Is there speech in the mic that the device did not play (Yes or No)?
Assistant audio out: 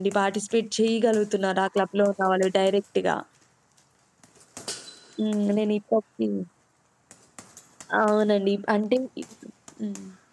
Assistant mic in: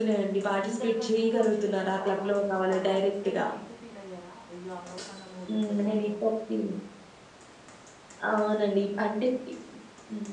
Yes